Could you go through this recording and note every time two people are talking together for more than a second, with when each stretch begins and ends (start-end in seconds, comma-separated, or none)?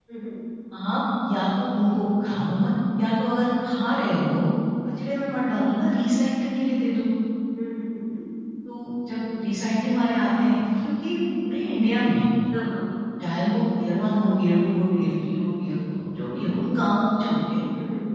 none